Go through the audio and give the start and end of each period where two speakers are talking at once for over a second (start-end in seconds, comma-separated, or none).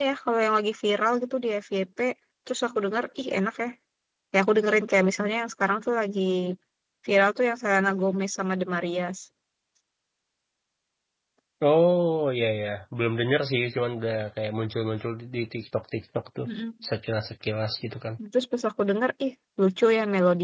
none